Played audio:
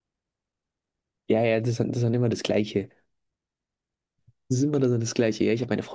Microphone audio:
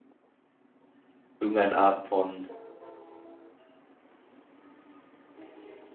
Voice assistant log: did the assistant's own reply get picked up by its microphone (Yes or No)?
No